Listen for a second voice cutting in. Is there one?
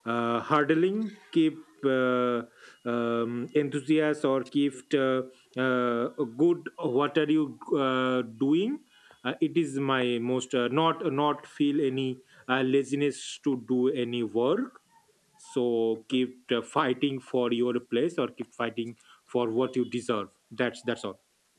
No

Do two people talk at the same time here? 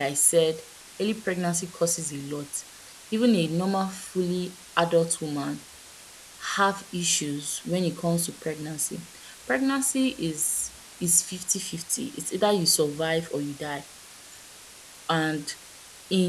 No

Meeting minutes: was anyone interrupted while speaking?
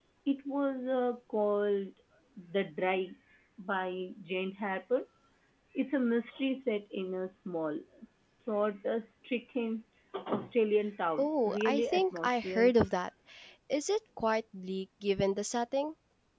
Yes, from 11.2 s

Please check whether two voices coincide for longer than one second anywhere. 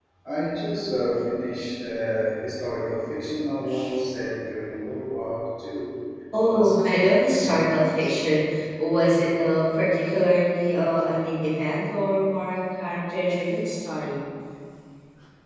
Yes, from 6.3 s

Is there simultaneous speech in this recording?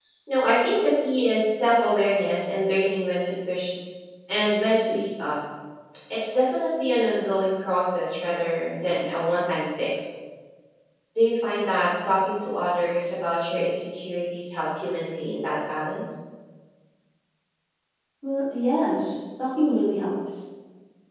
No

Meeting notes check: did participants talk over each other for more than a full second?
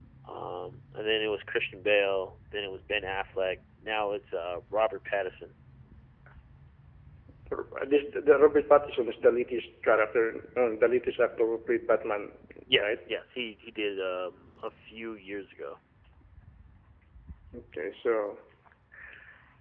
No

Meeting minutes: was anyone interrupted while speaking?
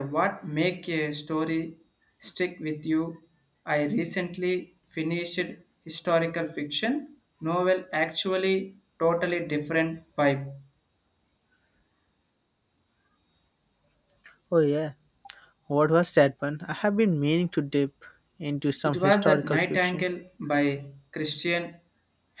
Yes, from 18.8 s

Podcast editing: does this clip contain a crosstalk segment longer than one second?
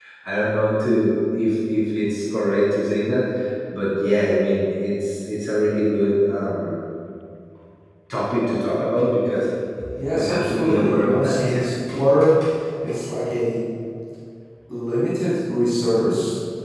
Yes, from 10.1 s

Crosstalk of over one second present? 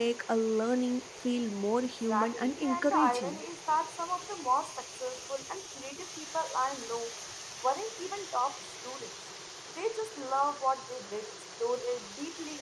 Yes, from 2.1 s

